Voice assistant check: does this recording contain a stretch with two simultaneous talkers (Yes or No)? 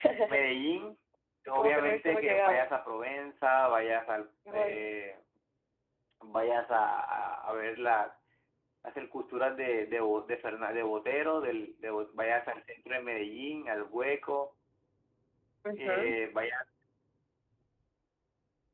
Yes